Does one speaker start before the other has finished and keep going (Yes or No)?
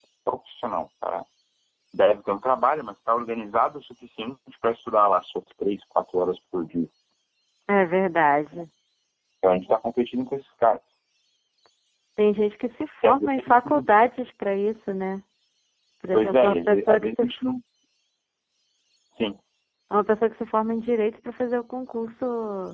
Yes